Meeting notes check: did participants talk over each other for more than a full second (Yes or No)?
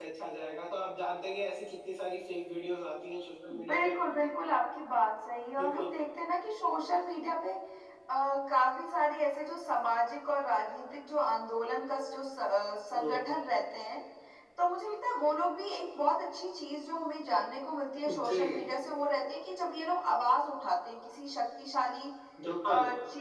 No